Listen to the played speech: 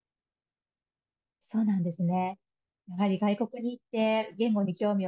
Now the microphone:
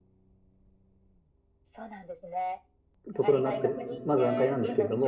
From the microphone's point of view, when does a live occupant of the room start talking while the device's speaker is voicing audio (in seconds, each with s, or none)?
3.1 s